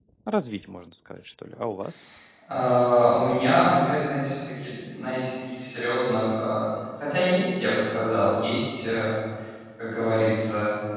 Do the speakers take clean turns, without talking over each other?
Yes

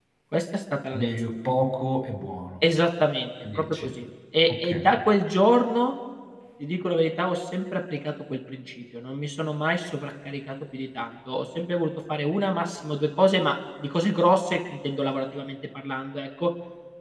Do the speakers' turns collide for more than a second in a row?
No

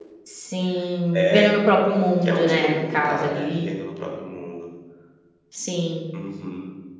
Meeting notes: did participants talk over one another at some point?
Yes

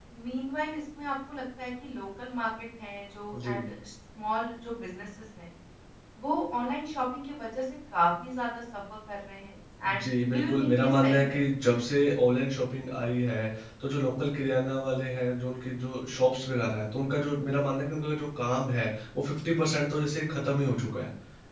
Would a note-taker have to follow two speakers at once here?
Yes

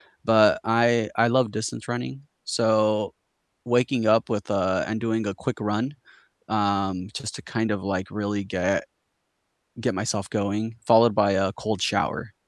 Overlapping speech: No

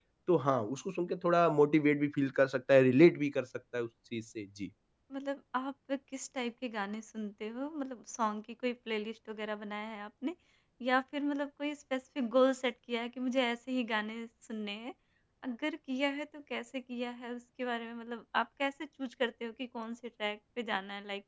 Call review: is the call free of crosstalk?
Yes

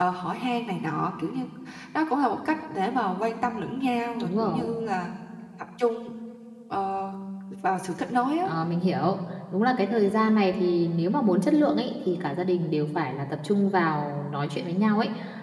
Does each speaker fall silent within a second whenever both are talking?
Yes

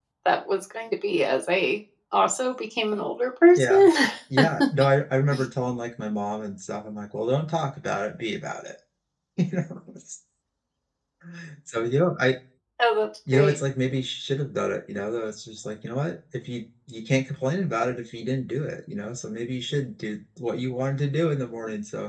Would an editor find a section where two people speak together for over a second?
No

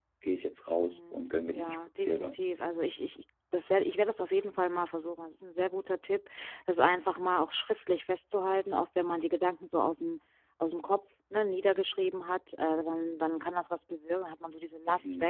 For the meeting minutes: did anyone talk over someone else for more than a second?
Yes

